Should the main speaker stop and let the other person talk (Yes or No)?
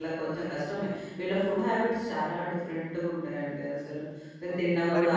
Yes